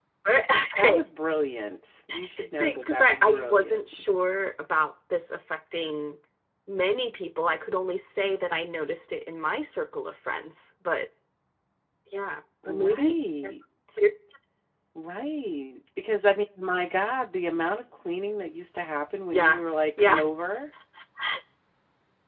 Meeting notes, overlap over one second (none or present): present